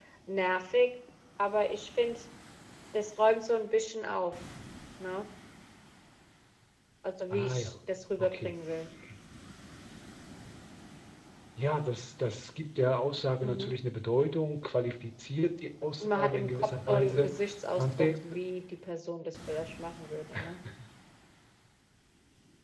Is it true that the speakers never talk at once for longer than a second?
No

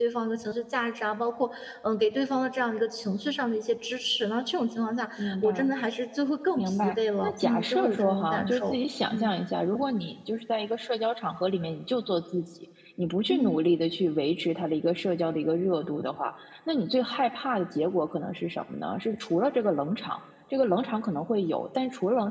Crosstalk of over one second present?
Yes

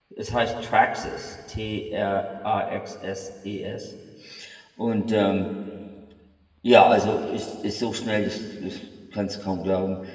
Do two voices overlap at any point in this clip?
No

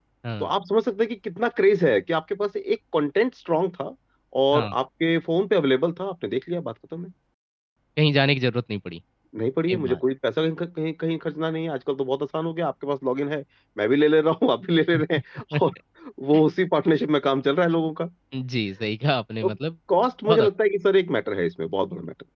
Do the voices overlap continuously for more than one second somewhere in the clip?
No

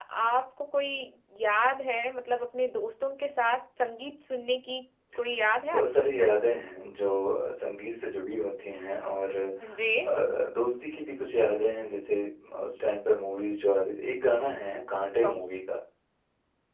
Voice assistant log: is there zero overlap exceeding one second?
Yes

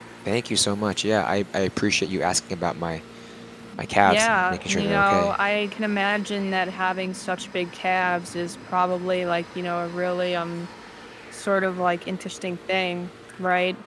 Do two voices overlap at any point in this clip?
Yes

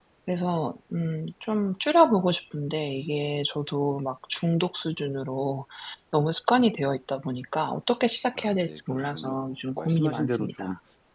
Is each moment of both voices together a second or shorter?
No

